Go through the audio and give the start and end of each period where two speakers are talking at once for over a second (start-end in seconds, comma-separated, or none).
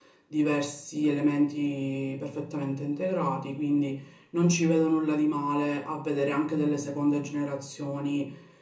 none